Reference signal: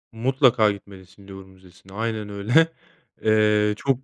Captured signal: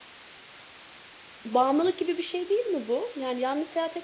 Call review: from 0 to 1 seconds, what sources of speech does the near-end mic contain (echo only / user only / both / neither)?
neither